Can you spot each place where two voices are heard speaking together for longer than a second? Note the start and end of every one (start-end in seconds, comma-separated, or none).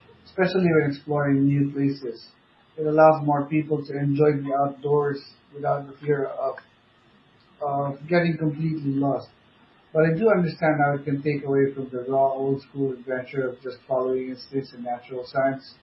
none